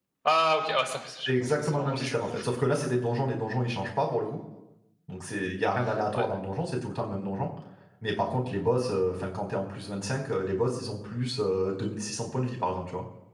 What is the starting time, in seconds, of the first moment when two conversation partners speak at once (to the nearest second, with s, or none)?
1 s